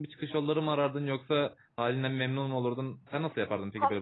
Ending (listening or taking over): taking over